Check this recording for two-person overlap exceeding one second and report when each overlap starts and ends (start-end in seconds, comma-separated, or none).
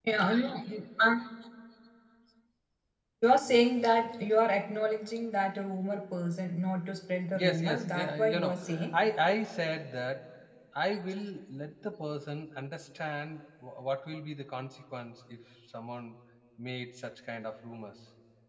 7.3-9.0